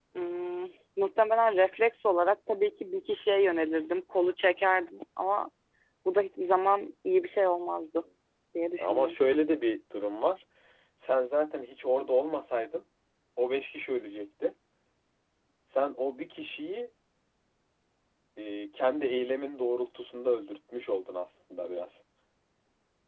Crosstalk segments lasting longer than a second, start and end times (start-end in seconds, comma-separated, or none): none